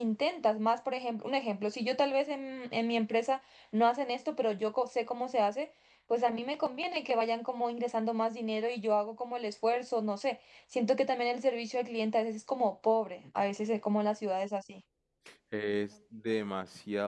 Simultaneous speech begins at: none

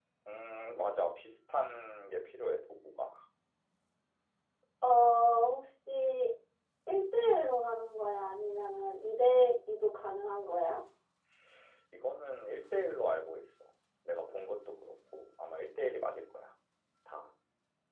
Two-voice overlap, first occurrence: none

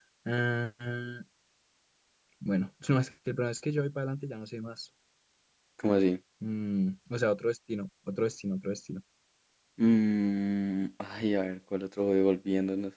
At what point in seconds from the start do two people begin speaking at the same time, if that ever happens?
none

